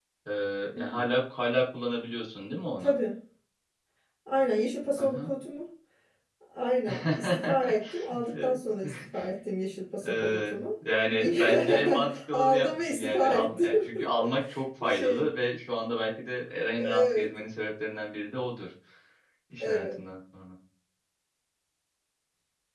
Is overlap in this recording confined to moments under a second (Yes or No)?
No